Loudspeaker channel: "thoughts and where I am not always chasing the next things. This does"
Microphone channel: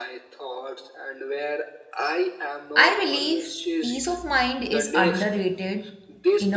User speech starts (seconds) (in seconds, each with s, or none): 2.8 s